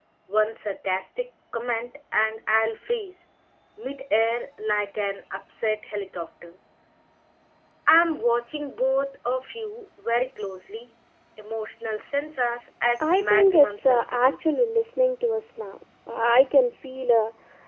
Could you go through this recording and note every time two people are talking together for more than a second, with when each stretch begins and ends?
13.0-14.4

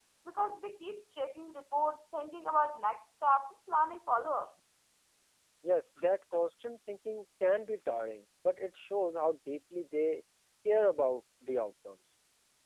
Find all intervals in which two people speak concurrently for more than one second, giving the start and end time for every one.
none

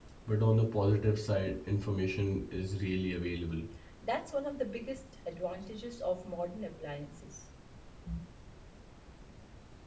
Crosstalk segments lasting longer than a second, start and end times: none

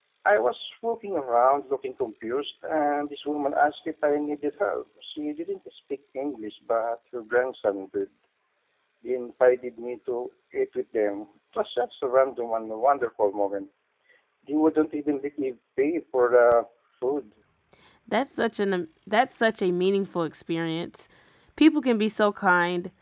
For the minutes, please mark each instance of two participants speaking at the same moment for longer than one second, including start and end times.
none

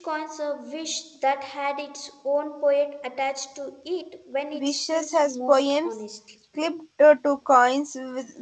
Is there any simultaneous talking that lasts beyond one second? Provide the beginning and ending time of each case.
4.5-5.9

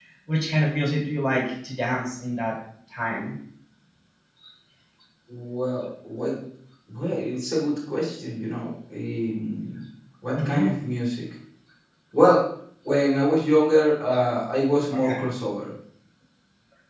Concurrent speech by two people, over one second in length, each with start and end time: none

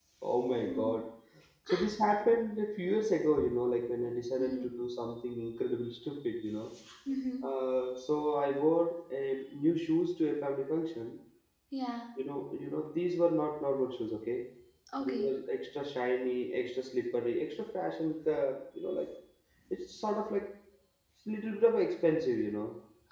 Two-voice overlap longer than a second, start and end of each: none

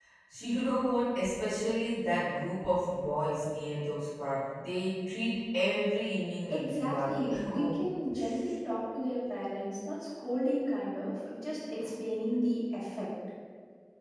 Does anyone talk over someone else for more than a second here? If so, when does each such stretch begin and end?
6.5-7.8

